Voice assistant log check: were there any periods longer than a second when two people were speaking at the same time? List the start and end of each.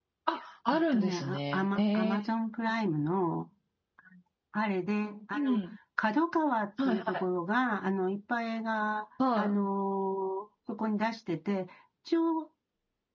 0.7-2.2

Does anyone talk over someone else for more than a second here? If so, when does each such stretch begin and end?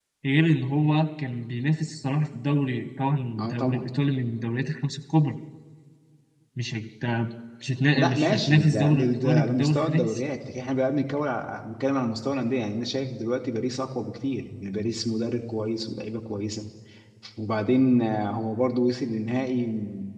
7.9-10.2

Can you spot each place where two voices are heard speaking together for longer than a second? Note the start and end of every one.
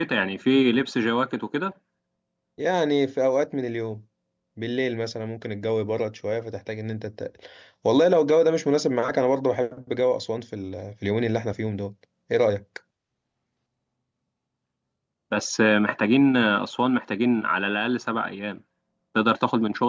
none

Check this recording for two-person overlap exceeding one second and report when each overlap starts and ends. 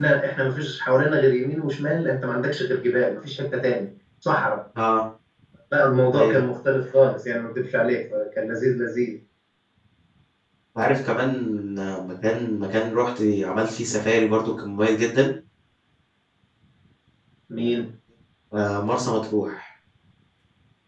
none

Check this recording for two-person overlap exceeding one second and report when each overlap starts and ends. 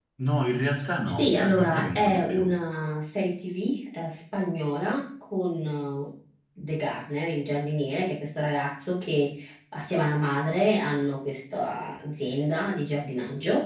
1.2-2.6

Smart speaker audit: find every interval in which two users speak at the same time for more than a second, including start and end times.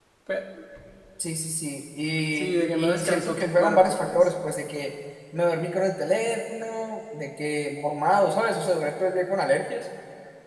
2.4-4.2

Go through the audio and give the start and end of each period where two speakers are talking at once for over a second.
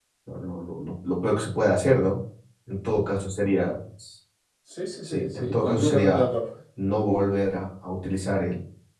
5.0-6.3

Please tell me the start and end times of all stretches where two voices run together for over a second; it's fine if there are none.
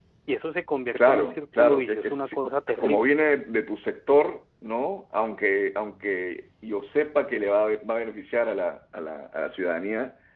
0.9-2.4

